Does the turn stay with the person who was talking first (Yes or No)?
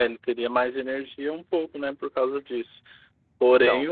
Yes